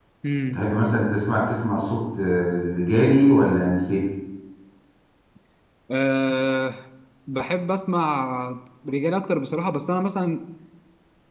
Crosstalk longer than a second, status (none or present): none